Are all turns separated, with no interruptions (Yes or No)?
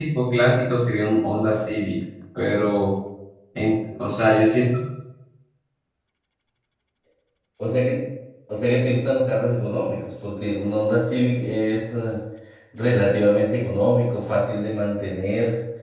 Yes